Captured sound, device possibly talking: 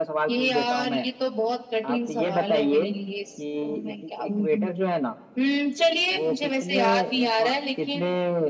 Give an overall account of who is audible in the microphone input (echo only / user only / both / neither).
echo only